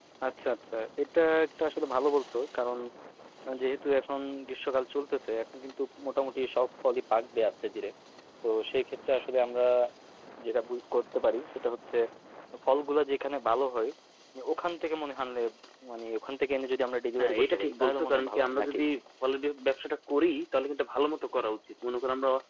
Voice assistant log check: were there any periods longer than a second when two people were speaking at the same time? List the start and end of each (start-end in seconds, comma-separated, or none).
17.2-18.8